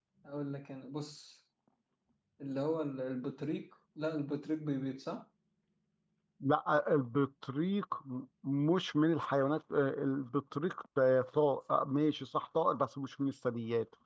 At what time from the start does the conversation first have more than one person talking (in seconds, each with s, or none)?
none